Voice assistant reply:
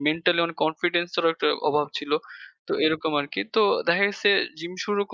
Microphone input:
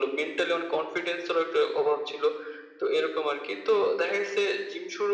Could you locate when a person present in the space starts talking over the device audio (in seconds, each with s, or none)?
none